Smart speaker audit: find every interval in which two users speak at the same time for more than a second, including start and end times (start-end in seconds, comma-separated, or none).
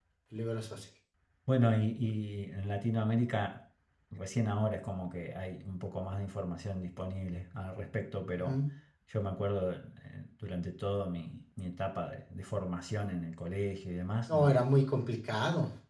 none